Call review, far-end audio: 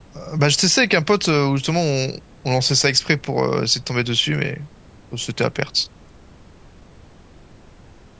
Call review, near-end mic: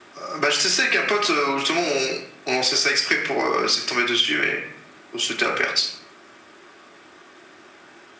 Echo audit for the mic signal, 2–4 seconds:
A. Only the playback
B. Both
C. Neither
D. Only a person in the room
A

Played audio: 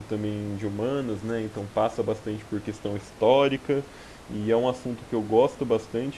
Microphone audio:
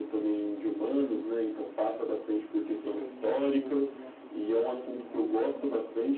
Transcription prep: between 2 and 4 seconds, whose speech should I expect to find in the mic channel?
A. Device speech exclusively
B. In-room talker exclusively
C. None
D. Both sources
D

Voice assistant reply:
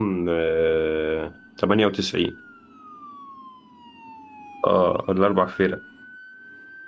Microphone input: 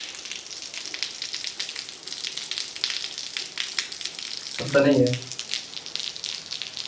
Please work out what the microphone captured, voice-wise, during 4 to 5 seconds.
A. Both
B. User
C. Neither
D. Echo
B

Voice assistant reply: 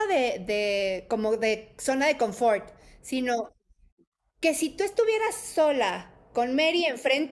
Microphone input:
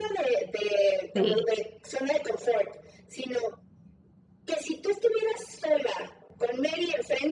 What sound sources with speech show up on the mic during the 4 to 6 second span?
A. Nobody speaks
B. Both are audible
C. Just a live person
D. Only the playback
D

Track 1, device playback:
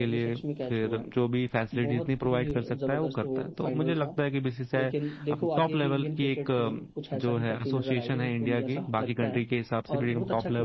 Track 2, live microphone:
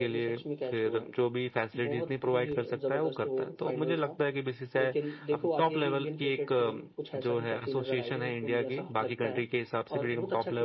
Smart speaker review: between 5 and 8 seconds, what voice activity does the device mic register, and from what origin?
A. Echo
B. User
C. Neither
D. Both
A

